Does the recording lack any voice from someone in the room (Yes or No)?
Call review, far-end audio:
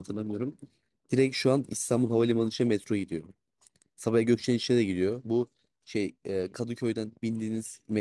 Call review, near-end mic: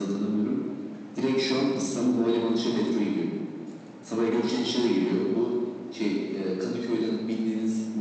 Yes